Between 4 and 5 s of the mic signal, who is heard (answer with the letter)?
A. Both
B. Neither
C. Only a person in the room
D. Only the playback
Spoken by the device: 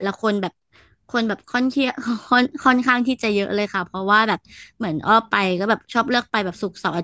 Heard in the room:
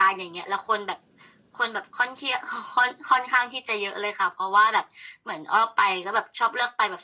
D